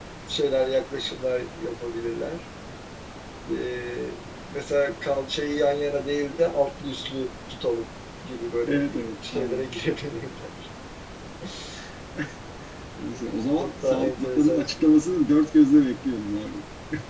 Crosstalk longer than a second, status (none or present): present